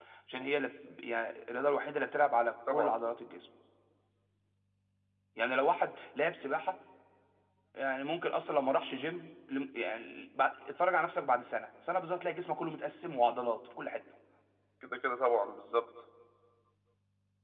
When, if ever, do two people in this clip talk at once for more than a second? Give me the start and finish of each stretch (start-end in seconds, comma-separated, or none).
none